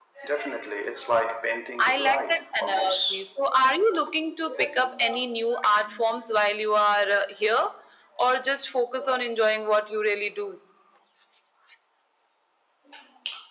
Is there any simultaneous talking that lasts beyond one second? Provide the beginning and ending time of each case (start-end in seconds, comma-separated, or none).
1.8-3.2